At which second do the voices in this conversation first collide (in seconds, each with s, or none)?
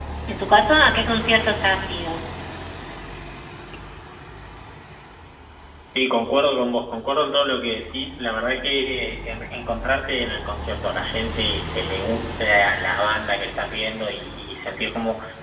none